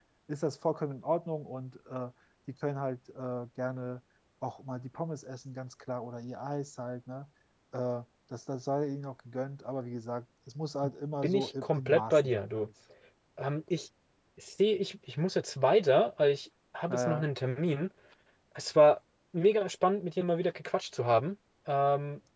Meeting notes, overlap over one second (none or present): present